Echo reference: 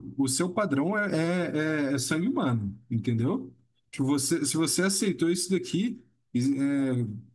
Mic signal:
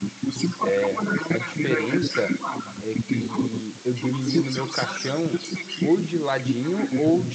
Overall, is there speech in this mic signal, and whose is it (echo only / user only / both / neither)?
both